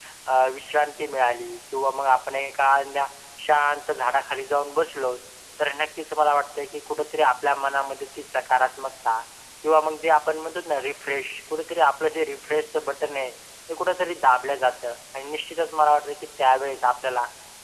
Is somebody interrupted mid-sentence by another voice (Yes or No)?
No